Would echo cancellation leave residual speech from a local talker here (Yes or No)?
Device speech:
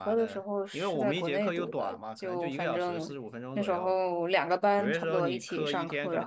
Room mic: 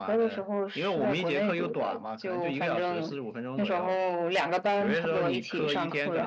No